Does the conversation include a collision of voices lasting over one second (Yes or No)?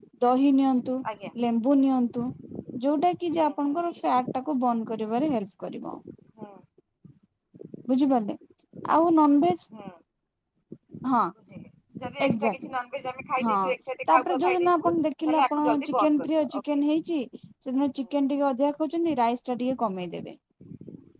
Yes